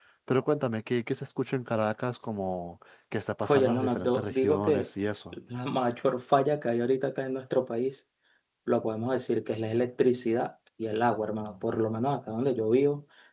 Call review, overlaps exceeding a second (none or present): present